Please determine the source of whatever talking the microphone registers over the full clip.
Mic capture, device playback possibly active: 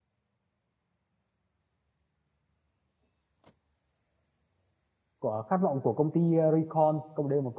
user only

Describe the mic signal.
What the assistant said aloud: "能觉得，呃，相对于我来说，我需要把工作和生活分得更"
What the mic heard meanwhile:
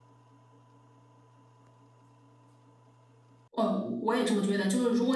user only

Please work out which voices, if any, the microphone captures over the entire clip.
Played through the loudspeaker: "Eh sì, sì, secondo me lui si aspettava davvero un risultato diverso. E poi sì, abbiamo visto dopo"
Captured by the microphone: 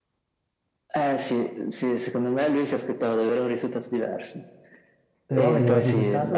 both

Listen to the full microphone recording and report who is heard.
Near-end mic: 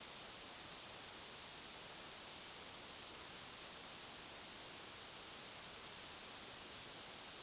neither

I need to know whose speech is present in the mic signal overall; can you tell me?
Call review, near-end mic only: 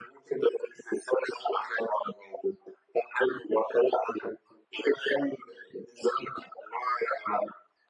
echo only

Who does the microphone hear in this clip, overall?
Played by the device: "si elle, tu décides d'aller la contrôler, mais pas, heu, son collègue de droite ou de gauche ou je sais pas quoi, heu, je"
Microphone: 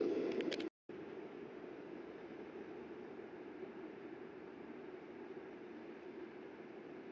neither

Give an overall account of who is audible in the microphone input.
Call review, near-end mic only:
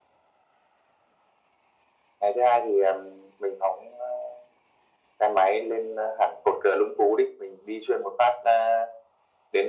echo only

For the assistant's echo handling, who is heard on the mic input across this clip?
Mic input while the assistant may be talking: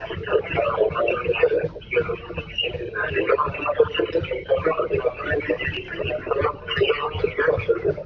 echo only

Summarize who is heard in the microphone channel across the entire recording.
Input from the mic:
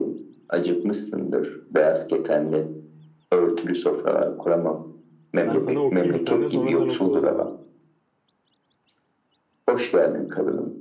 both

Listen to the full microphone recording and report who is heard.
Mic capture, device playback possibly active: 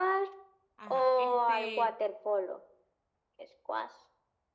both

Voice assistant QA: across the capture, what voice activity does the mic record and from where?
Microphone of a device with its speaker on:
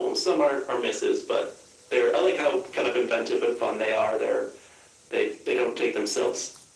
echo only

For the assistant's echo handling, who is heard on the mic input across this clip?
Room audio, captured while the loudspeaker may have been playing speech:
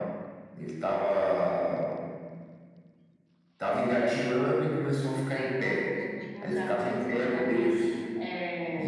both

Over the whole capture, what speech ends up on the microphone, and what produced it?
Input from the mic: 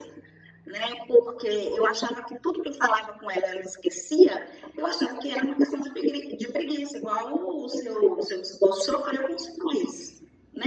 echo only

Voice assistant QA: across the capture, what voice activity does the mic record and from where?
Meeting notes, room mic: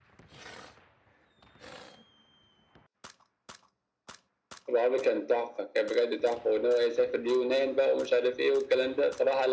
echo only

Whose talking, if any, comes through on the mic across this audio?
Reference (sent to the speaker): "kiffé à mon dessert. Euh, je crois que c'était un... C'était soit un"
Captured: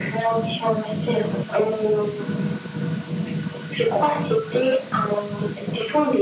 echo only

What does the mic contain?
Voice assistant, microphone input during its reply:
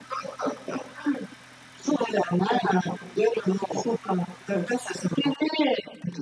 echo only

